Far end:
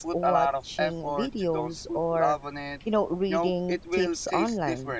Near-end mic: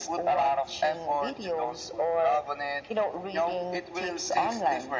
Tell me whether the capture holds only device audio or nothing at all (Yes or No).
Yes